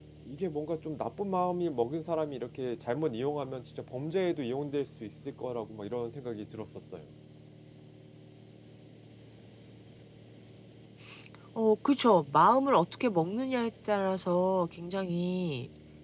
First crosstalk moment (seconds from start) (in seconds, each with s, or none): none